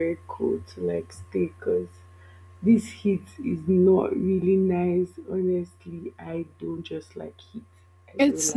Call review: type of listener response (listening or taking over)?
taking over